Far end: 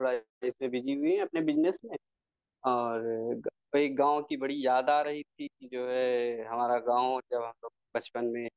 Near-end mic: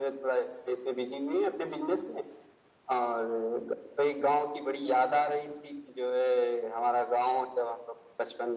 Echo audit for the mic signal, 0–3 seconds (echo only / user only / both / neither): echo only